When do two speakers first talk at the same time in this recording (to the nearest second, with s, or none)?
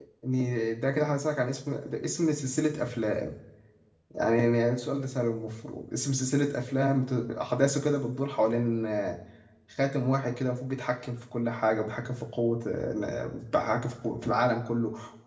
none